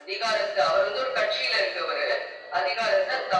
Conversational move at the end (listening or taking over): listening